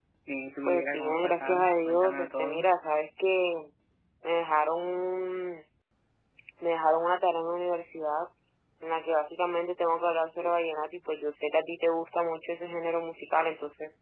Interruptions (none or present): present